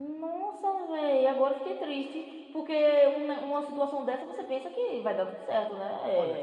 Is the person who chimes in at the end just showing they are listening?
No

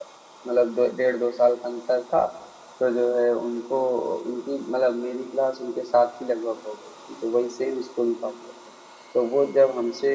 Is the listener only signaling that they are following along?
Yes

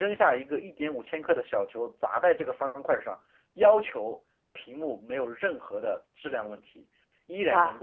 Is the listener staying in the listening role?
Yes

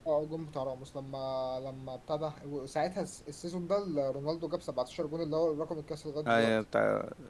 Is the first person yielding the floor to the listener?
Yes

